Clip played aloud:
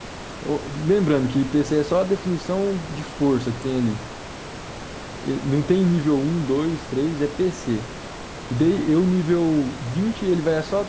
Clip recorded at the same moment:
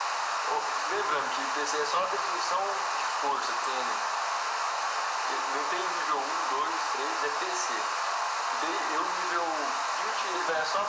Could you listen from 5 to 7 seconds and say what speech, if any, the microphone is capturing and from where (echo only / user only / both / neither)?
echo only